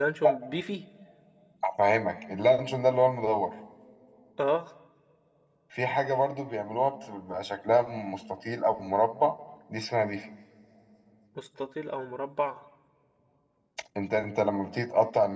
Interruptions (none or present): none